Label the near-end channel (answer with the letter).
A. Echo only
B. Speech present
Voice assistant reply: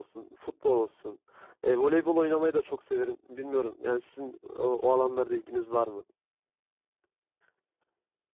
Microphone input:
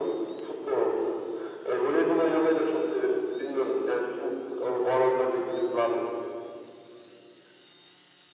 A